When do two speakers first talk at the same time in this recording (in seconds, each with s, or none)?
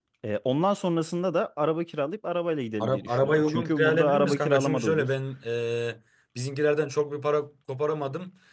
2.8 s